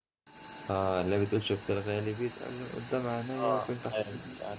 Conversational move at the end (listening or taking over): taking over